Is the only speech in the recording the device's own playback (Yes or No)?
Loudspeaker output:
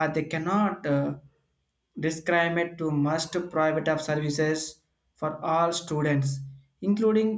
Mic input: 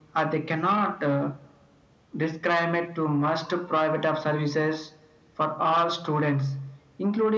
Yes